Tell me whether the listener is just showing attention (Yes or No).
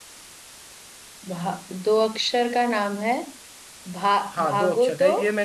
No